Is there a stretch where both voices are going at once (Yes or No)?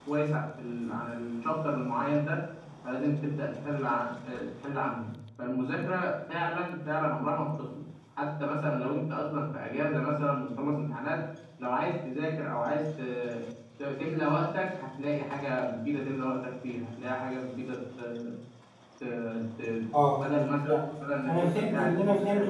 Yes